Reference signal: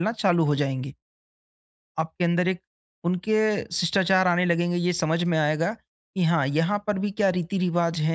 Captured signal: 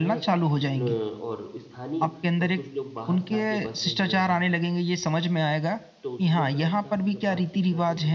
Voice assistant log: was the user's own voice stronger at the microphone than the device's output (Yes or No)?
No